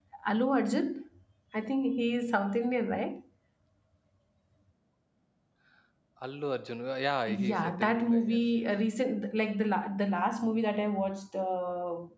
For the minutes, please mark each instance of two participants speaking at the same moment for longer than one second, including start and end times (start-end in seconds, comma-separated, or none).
7.3-8.7